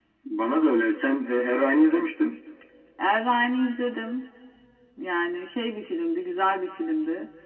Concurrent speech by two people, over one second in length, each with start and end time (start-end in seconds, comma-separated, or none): none